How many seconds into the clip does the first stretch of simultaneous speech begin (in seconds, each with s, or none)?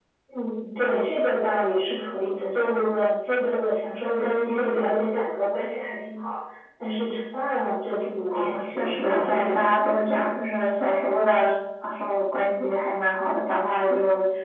8.3 s